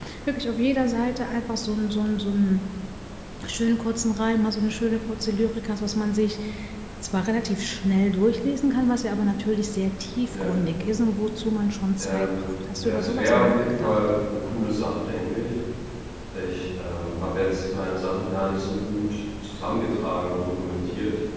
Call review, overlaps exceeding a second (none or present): present